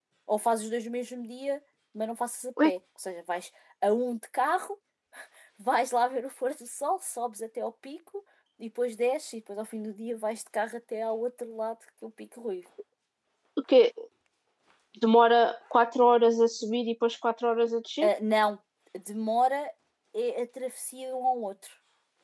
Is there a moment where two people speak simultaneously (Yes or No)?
No